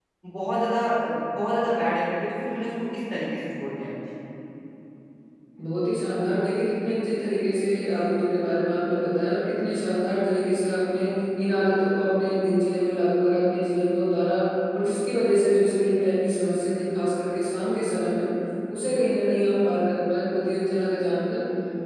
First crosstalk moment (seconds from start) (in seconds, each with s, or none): none